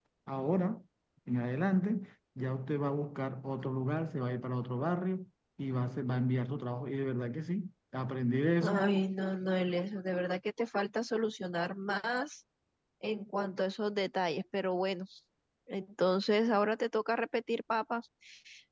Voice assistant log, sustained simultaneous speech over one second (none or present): none